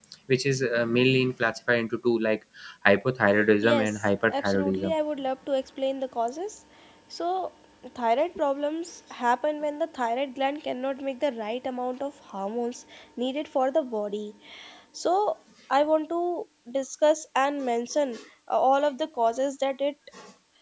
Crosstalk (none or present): present